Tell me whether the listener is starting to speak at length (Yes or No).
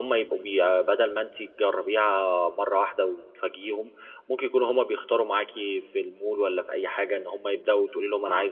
No